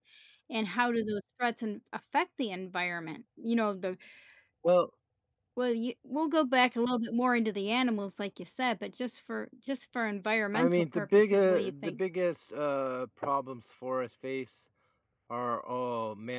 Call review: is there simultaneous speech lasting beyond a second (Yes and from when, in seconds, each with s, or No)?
Yes, from 10.5 s